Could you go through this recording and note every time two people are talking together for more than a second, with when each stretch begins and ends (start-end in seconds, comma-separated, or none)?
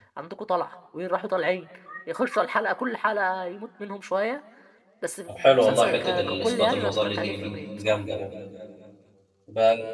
5.3-8.0